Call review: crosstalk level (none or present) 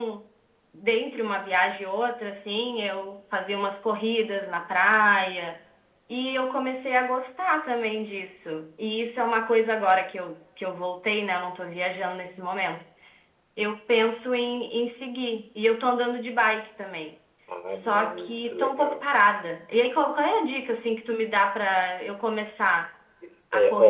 present